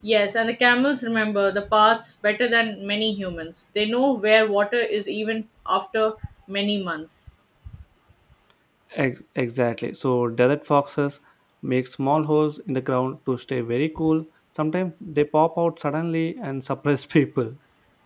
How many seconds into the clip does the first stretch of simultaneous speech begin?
none

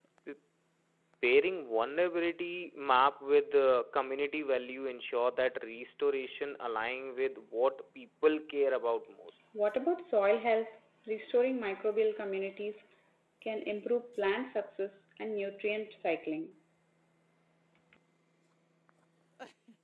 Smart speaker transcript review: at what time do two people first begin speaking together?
none

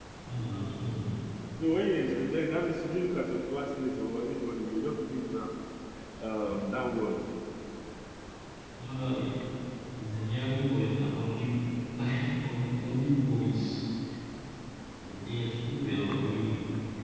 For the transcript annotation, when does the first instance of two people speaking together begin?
none

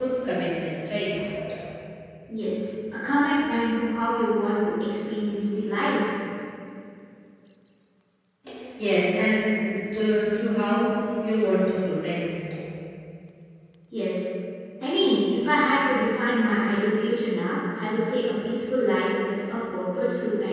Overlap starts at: none

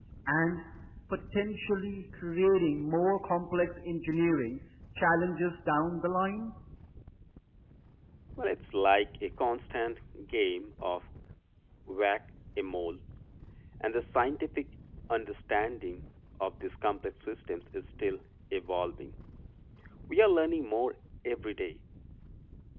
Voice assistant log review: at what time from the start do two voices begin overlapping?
none

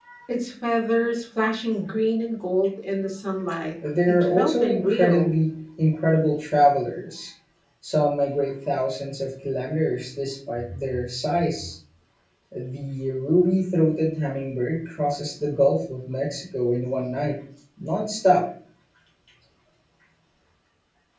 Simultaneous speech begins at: 4 s

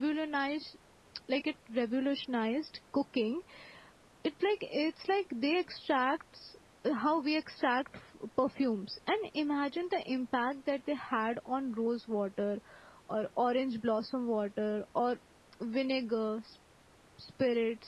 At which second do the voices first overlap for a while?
none

